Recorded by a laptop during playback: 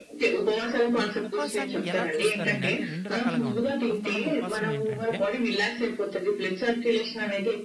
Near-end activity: present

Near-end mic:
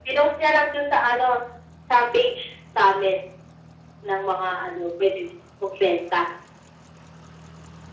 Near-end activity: none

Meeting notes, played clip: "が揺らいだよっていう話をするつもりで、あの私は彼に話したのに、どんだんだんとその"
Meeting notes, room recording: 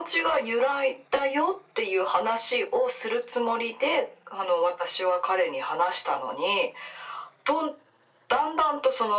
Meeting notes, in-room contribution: none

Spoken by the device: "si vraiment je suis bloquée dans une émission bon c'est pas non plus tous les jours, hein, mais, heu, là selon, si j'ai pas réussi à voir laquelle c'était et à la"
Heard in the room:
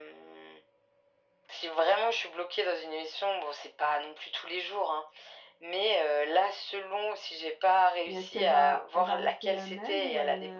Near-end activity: present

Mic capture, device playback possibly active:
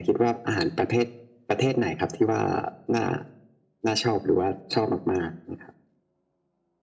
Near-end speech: none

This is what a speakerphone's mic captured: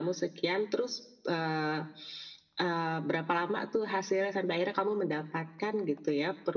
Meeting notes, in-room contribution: none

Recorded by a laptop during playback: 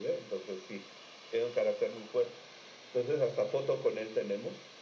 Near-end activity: none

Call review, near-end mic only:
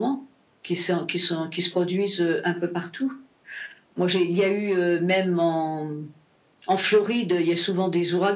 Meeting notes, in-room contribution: none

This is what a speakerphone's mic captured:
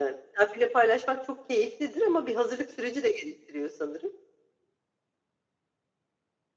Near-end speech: none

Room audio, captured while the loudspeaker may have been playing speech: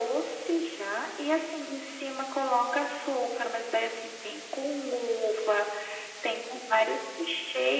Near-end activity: none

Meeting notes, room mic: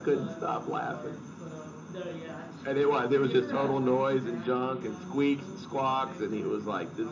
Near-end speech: present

